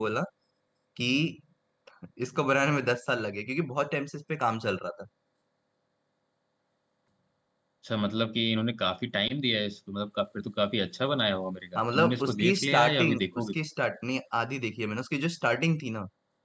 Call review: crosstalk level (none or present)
present